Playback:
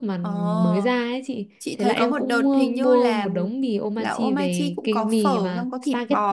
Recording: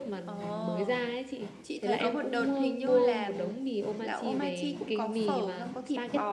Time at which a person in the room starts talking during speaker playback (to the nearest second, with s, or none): none